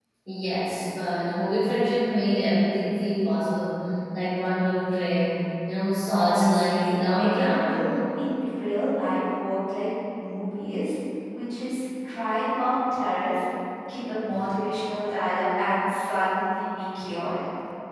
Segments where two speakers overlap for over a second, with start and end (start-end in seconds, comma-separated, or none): 6.1-7.9